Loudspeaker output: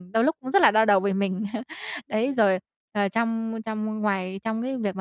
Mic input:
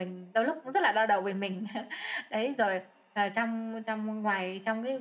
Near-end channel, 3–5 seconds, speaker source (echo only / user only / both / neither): echo only